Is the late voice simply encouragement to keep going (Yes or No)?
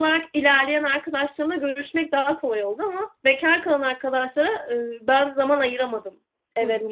No